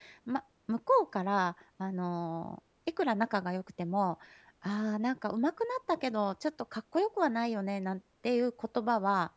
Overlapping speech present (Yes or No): No